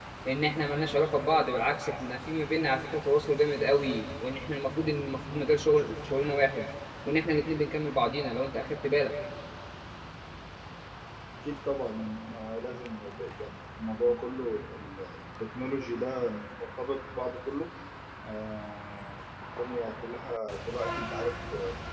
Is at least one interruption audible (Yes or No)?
No